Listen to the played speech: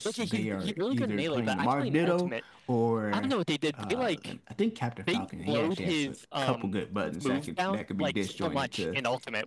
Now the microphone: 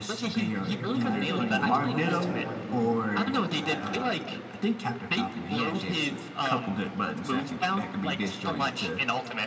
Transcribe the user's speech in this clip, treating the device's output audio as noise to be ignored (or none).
Yeah, no, I think, oh, what is that one Roy player that I,